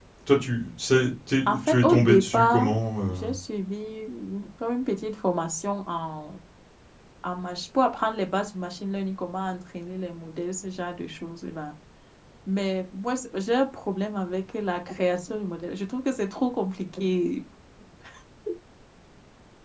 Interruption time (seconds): 1 s

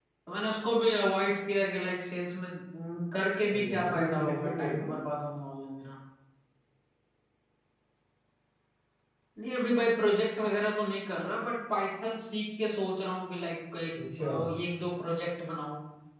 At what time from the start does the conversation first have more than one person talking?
4 s

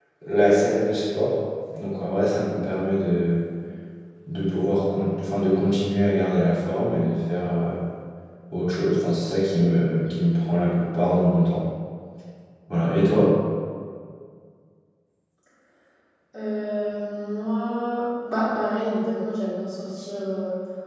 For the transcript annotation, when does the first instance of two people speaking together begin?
none

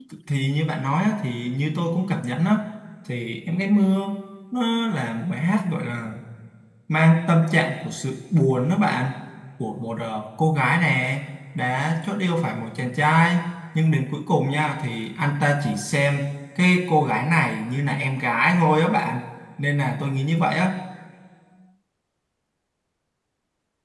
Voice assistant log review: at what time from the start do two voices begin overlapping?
none

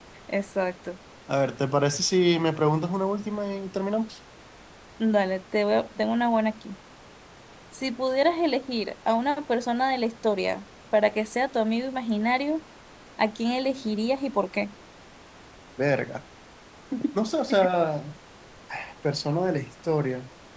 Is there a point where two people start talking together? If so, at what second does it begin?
none

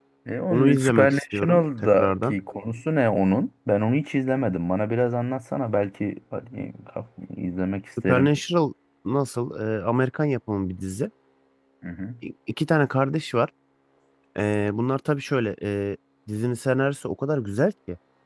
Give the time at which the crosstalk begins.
1 s

